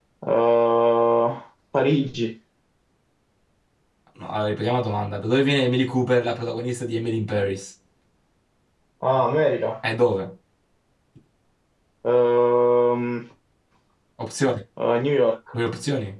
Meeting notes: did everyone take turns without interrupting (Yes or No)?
Yes